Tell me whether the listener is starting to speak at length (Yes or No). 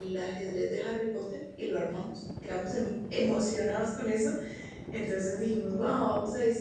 No